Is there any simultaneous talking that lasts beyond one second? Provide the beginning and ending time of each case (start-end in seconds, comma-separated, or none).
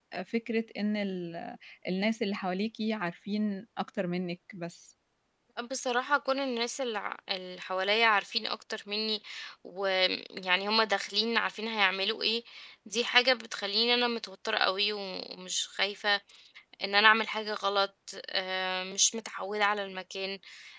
none